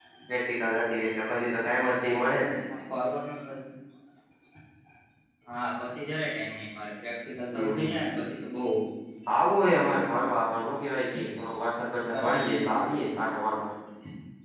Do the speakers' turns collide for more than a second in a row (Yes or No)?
No